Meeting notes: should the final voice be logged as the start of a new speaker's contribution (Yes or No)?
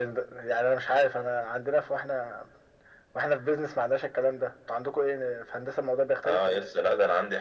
Yes